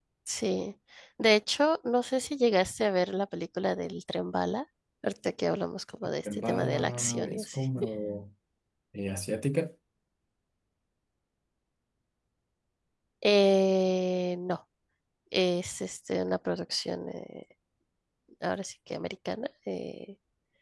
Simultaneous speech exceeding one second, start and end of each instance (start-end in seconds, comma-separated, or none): 6.2-7.6